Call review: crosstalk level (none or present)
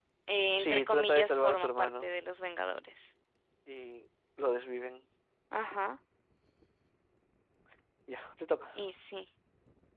present